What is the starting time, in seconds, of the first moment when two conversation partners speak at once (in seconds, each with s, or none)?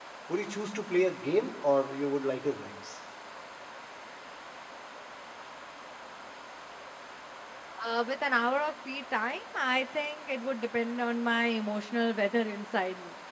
none